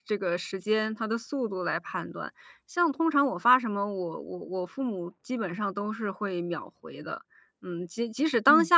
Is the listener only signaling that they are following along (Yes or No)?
Yes